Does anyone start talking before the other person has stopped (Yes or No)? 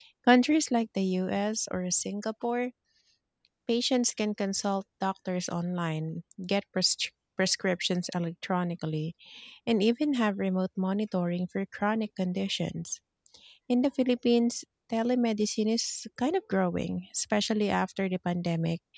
No